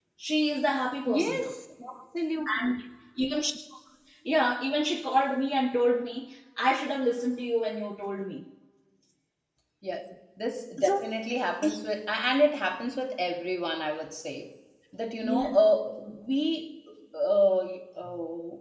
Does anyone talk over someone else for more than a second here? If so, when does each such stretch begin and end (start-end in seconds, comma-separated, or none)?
none